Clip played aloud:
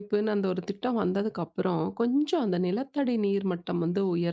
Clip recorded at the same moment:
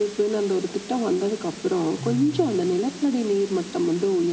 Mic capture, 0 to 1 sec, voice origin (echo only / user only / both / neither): echo only